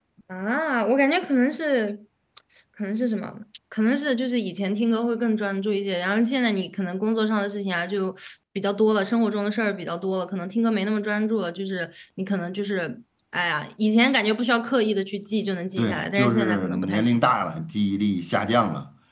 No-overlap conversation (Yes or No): No